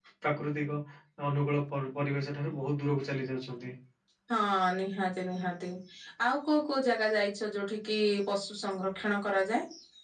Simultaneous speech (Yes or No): No